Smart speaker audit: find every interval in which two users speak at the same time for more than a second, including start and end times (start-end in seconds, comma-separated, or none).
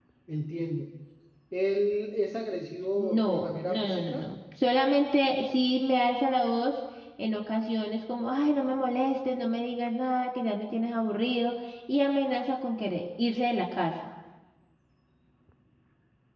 3.0-4.2